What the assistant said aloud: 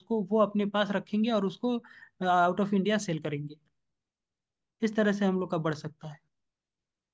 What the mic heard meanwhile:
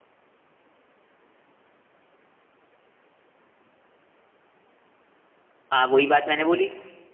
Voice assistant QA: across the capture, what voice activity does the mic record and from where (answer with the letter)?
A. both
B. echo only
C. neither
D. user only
D